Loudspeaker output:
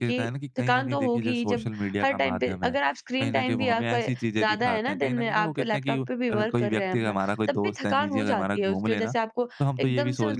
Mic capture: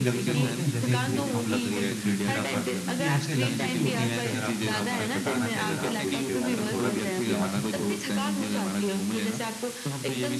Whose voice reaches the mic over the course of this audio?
both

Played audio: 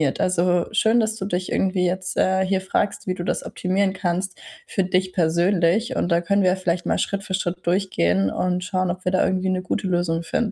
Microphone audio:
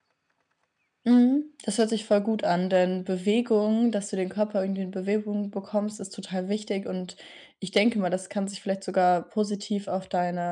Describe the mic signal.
user only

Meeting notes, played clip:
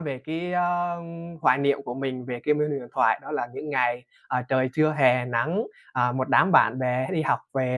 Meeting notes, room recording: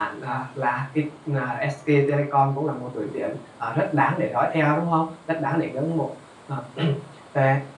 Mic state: user only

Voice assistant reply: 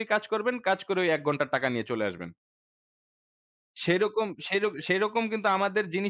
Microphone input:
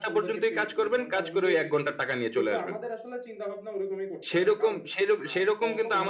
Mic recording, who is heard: both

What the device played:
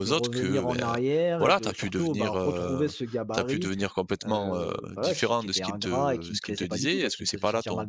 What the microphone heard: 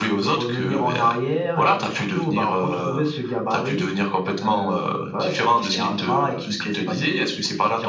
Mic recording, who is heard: both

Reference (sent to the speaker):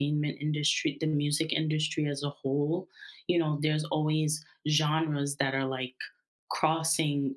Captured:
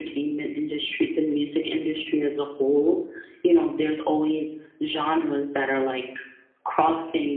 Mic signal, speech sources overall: echo only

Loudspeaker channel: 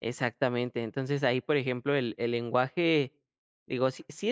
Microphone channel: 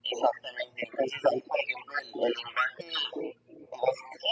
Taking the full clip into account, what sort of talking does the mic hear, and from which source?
echo only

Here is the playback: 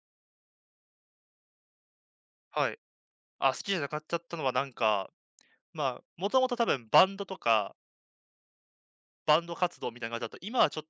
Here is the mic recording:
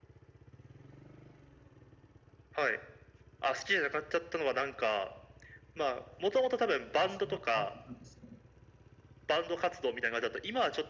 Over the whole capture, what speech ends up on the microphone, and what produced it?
both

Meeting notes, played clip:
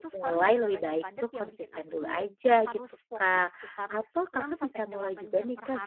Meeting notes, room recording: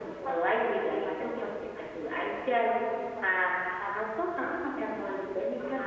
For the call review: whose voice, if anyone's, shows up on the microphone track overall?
echo only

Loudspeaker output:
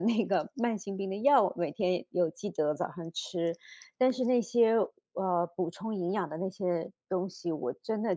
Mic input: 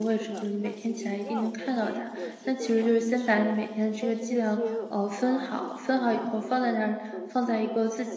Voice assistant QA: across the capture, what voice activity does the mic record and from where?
both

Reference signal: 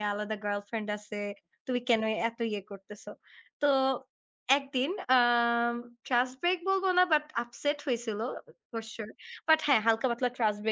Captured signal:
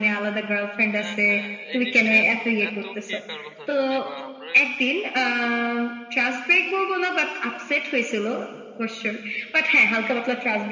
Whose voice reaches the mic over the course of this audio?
both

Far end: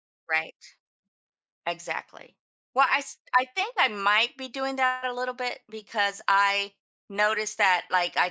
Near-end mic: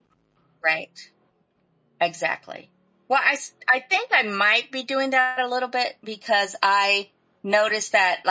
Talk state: echo only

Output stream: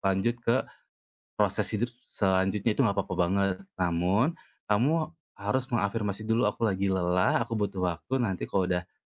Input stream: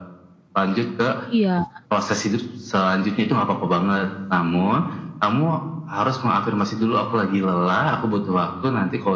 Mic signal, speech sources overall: both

